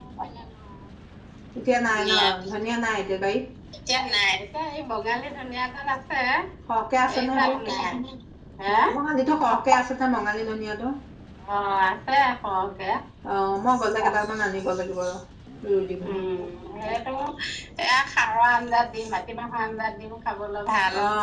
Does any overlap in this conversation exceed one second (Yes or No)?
No